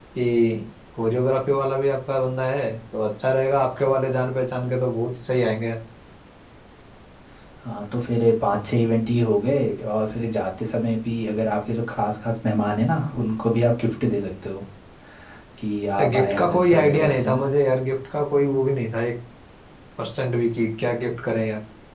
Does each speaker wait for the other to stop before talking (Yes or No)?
No